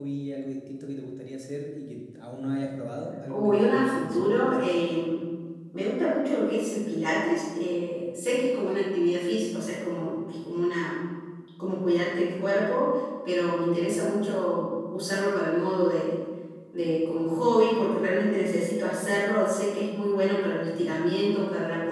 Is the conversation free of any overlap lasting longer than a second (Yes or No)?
No